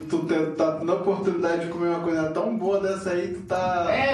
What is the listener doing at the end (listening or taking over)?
taking over